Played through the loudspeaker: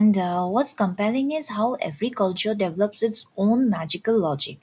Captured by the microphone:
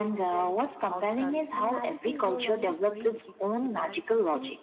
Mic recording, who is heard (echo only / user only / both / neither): both